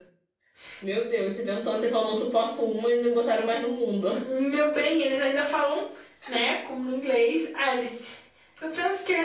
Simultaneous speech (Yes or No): No